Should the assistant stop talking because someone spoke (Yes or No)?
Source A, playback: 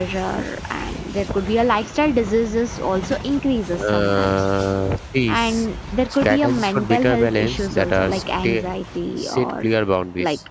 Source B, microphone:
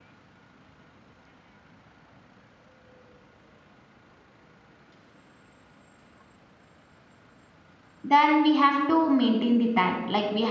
Yes